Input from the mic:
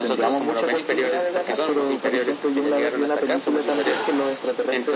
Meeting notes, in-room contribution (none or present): none